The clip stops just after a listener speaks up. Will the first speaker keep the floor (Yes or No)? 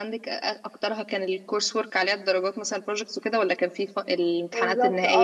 No